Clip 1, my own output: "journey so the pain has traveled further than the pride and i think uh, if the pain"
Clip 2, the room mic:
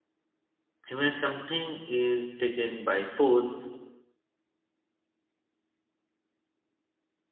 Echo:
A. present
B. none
B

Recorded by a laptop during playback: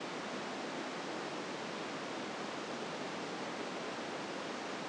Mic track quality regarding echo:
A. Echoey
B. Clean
B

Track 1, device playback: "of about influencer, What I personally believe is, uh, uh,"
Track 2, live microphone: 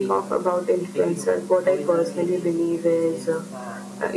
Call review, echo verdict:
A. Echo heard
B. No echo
A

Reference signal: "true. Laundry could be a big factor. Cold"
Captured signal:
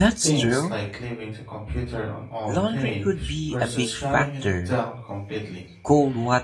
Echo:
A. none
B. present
B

